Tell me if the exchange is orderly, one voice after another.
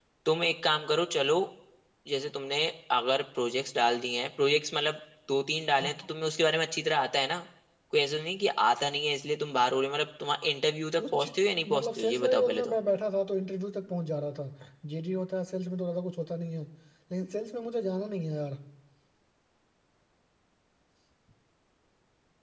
No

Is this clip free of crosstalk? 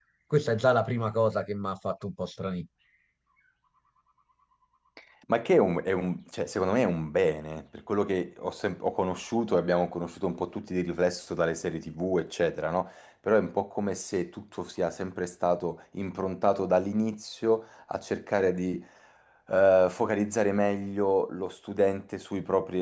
Yes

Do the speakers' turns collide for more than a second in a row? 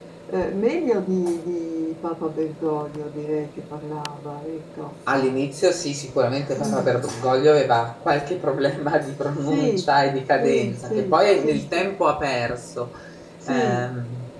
Yes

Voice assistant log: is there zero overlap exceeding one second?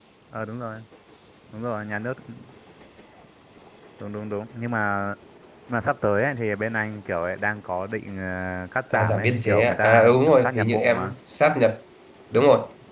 No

